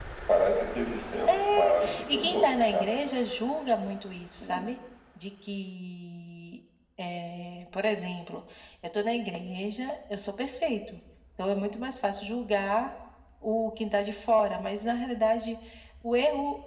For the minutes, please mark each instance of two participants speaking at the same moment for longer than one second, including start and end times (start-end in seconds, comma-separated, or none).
1.3-2.9